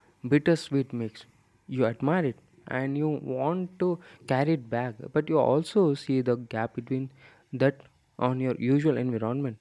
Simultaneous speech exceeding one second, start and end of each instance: none

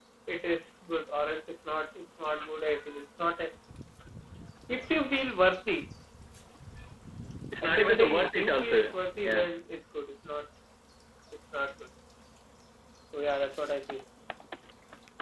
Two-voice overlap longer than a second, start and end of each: 7.6-9.4

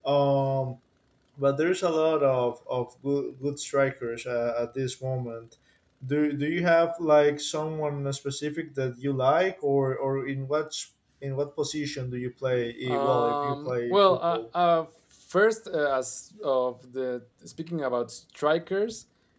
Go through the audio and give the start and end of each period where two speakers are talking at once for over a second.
12.9-14.4

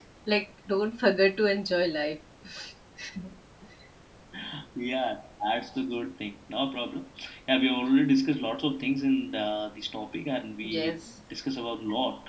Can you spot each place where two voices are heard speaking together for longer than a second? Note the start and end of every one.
none

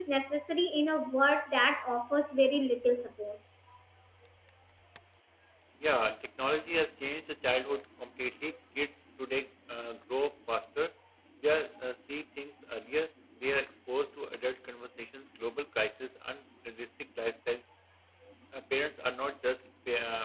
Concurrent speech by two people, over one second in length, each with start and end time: none

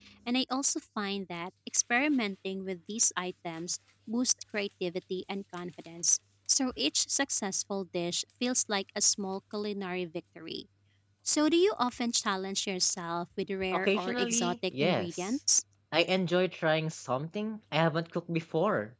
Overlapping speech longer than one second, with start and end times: 13.7-15.4

